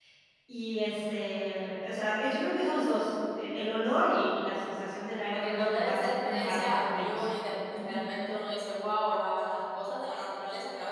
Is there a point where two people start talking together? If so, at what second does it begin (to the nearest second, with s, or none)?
5 s